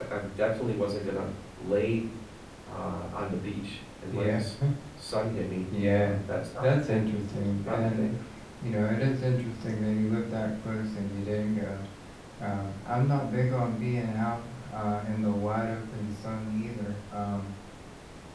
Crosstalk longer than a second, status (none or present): none